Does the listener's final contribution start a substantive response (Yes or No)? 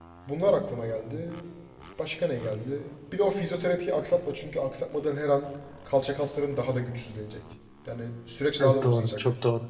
Yes